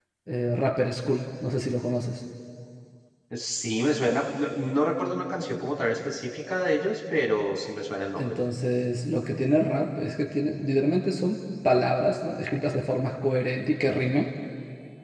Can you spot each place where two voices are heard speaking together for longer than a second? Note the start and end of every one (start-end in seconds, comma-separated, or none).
none